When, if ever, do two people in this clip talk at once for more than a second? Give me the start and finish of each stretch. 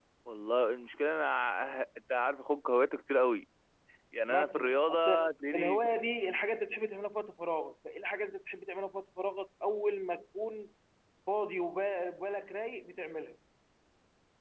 4.3-5.8

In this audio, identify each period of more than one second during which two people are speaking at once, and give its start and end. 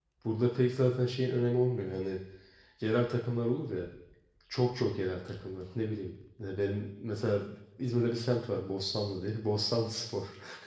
none

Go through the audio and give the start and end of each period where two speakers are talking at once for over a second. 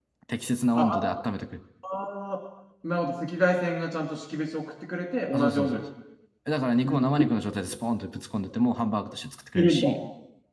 none

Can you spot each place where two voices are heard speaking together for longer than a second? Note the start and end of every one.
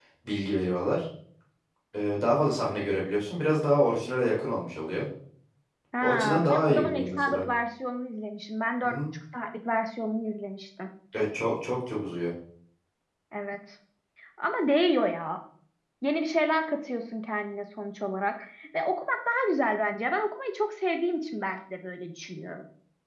6.0-7.4

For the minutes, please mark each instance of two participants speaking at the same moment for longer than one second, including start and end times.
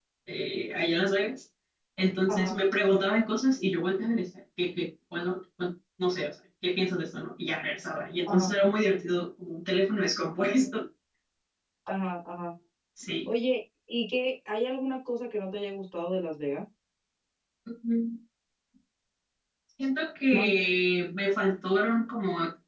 none

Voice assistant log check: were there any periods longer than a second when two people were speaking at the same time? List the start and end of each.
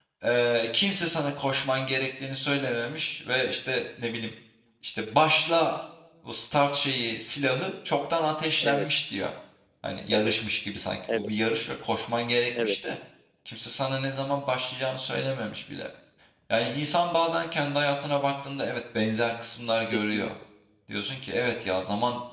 none

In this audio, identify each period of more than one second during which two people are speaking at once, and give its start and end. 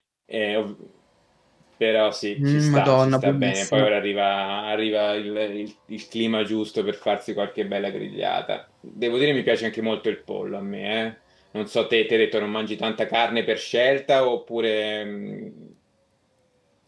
2.5-3.9

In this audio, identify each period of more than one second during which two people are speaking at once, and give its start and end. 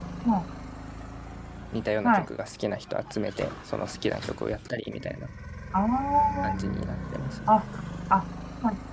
none

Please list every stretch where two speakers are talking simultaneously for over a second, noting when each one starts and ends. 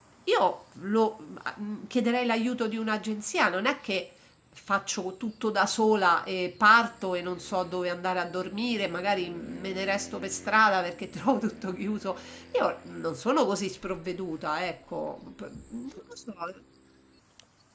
none

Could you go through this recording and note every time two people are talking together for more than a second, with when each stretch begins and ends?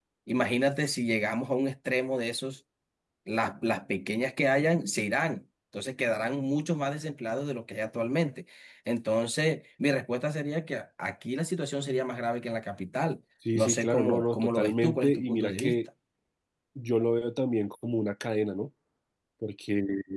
13.5-15.8

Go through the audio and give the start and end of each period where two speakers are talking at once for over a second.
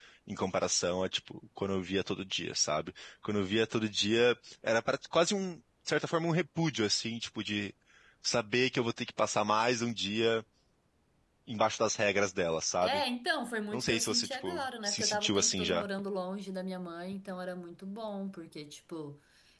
13.7-15.8

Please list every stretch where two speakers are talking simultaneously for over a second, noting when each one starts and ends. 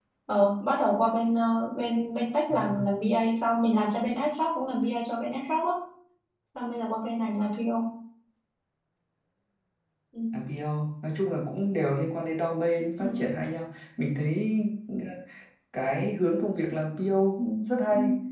none

